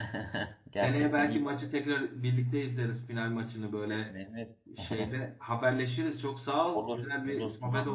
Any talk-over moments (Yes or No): Yes